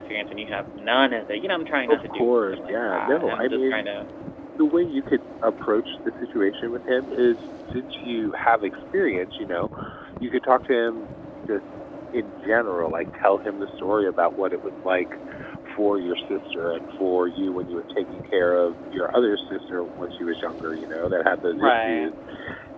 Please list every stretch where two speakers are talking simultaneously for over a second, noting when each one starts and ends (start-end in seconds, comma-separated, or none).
1.9-3.9